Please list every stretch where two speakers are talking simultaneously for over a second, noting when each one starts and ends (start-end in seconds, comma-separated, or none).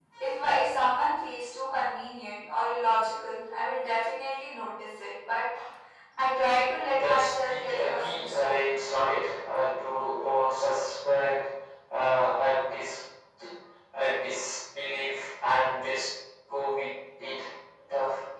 6.9-8.7